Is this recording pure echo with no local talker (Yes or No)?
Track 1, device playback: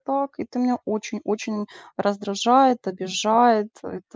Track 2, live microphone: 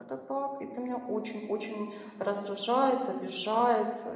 Yes